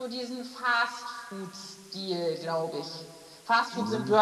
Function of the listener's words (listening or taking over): taking over